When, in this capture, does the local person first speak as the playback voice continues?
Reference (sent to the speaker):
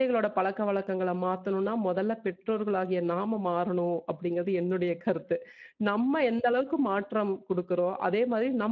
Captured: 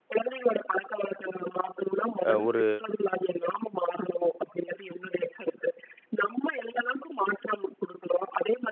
2.3 s

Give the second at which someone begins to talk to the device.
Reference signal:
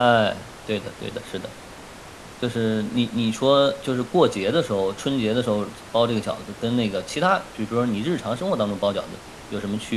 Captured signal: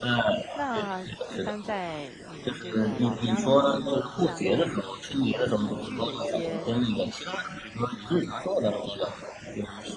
0.5 s

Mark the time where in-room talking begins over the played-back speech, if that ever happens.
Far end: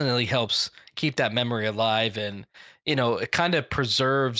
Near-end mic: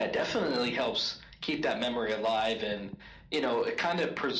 none

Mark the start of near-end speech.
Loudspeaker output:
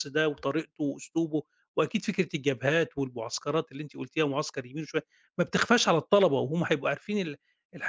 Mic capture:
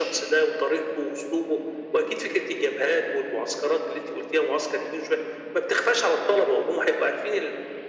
none

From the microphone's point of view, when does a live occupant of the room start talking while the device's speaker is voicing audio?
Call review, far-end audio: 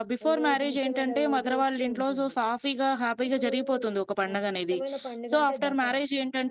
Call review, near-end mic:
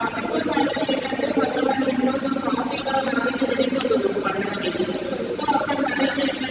none

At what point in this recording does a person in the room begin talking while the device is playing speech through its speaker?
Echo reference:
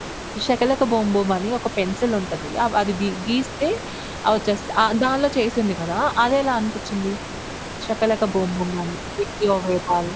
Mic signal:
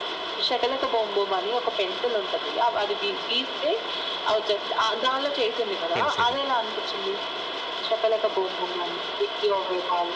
6.0 s

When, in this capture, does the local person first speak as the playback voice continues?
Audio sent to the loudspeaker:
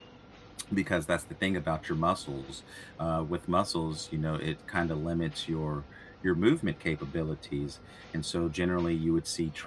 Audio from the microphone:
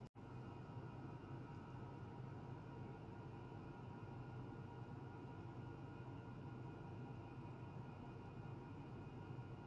none

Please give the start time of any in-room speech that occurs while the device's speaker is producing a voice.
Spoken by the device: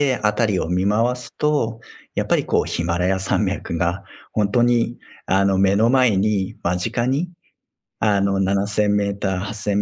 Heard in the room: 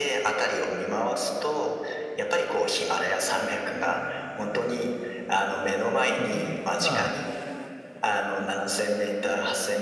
6.2 s

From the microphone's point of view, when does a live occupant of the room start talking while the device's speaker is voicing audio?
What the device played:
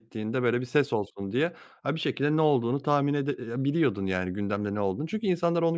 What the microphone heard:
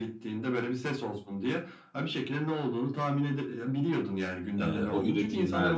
4.6 s

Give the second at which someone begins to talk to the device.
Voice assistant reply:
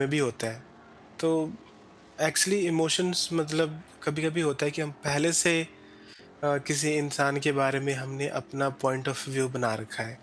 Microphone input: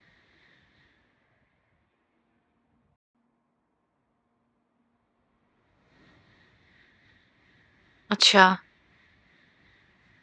8.1 s

